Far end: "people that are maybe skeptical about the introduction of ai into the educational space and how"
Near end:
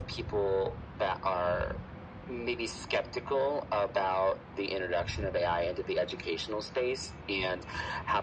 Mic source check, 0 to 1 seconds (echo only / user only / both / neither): echo only